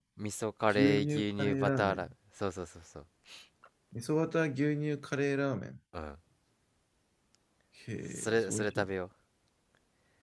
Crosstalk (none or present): present